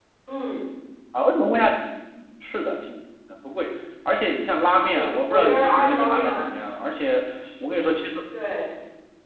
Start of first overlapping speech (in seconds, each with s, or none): 4.9 s